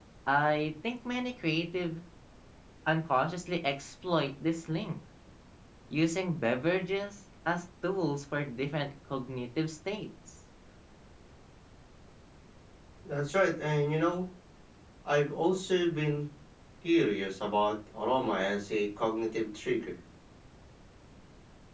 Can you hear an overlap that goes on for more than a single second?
No

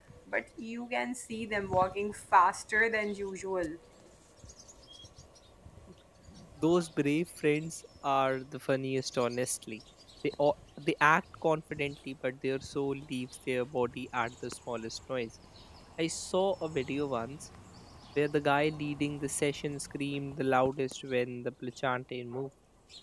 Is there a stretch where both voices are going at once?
No

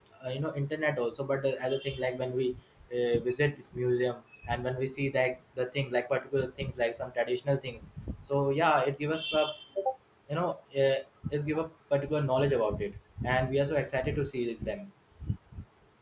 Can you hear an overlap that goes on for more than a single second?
No

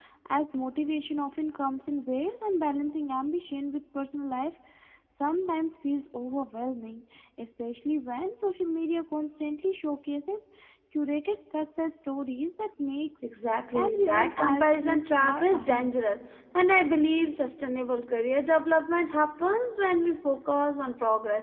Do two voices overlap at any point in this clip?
Yes, from 13.8 s

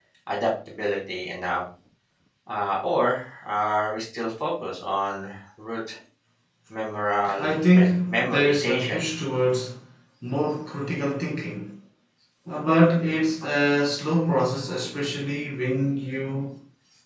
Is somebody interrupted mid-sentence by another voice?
Yes, from 7.4 s

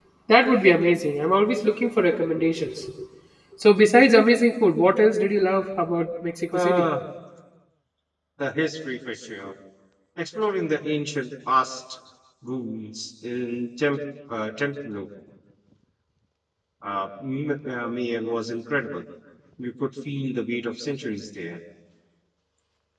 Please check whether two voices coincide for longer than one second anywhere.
No

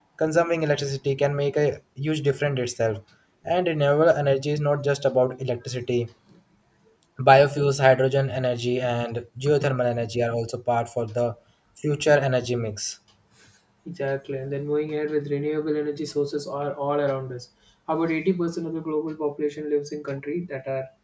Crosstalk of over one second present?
No

